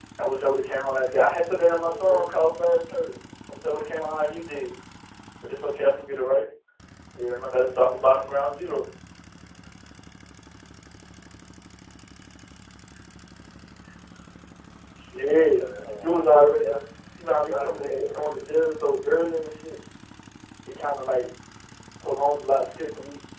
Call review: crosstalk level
present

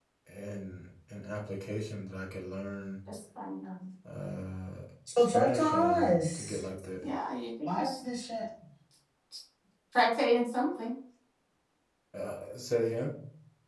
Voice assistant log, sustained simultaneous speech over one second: present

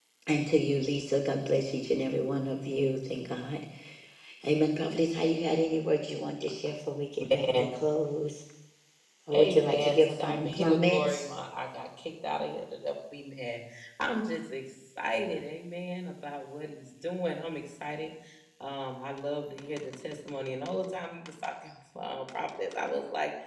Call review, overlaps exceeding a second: present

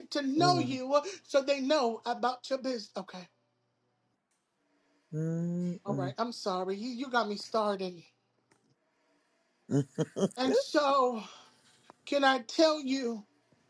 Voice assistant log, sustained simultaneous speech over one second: none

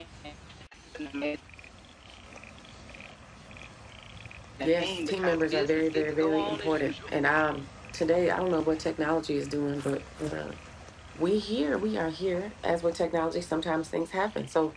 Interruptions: present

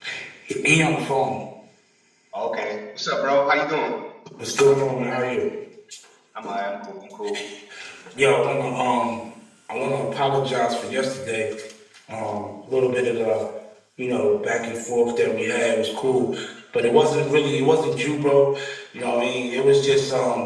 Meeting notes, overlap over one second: none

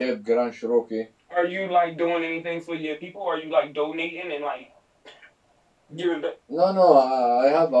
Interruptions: none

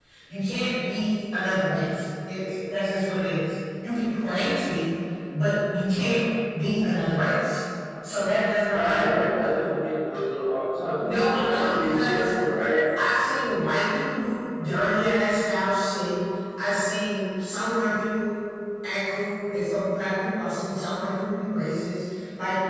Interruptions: present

